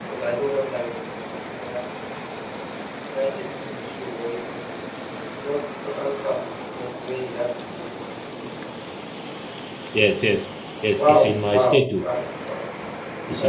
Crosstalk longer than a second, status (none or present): present